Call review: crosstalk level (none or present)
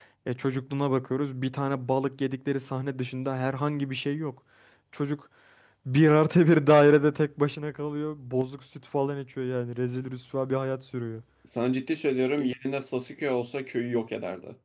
none